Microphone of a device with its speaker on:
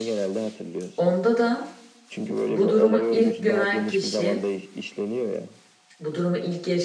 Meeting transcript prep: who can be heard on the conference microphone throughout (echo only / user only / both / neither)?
both